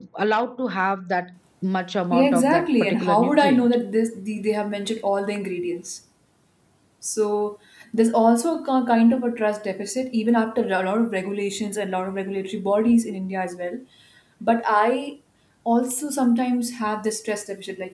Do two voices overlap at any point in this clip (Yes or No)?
Yes